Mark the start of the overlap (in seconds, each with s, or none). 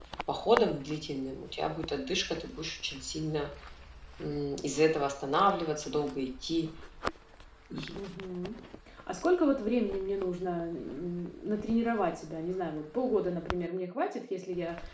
none